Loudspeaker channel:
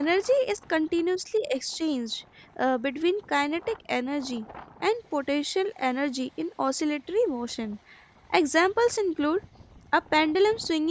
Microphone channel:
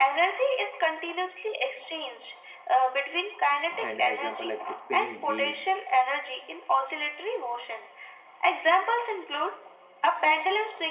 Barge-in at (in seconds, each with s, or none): 3.8 s